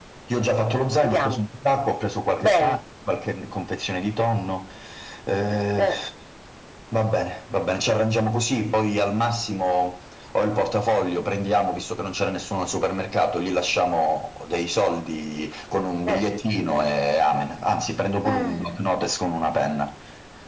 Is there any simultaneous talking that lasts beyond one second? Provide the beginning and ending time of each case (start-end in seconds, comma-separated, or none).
none